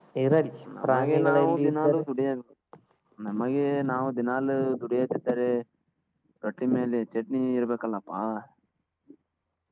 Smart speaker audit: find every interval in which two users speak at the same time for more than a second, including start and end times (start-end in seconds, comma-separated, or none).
0.8-2.0